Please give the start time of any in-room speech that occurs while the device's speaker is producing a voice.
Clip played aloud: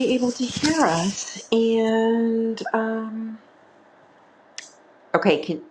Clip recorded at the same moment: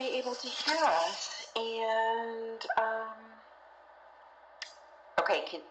none

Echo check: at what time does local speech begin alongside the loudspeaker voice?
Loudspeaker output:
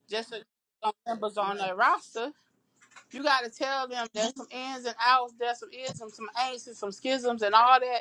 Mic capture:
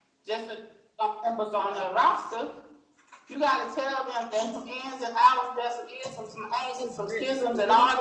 7 s

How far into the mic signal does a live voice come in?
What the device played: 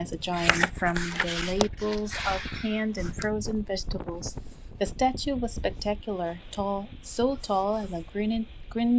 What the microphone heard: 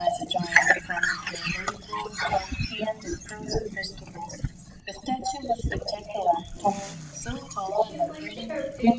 8 s

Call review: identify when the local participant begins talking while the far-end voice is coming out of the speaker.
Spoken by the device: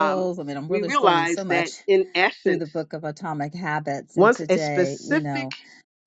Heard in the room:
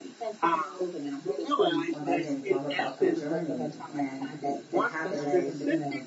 2 s

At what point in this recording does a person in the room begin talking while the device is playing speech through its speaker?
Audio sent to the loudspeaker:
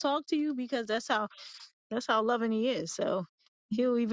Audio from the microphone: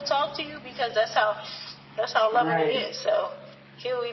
2 s

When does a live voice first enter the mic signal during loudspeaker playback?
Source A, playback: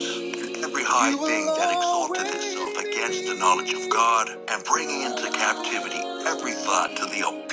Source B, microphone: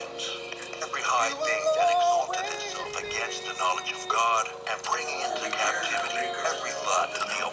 5 s

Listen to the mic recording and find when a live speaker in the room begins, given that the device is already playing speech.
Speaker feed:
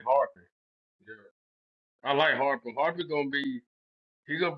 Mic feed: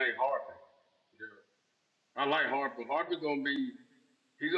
none

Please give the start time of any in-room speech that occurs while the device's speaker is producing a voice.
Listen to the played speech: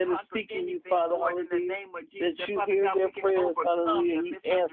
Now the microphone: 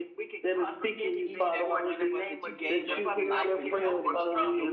1 s

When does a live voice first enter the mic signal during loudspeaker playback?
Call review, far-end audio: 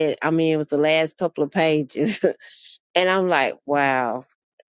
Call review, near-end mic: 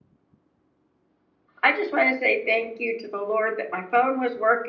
2 s

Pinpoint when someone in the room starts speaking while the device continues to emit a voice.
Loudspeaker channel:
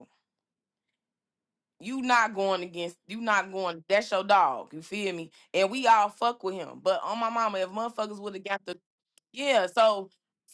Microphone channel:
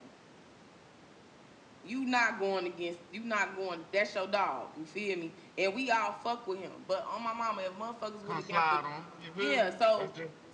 8 s

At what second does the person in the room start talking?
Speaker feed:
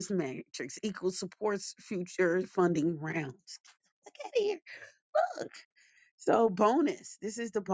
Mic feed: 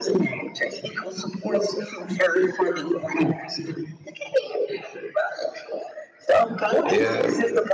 7 s

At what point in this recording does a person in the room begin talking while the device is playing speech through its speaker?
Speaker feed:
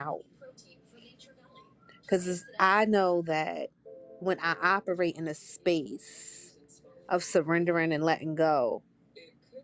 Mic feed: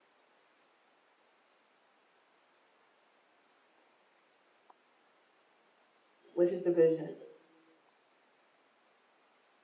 6 s

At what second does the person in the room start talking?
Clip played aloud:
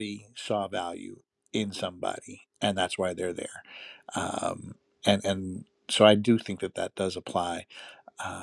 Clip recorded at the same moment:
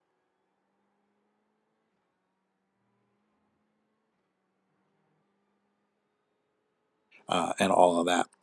7 s

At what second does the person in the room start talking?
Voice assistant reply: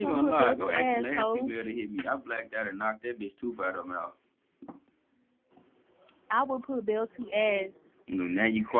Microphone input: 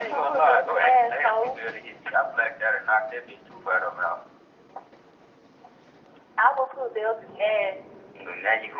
none

